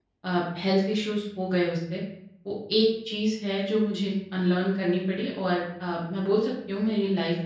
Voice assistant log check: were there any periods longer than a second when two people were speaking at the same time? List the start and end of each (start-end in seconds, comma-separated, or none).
none